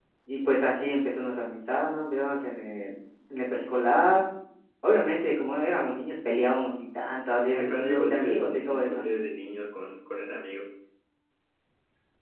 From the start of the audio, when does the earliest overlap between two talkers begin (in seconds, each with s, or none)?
7.5 s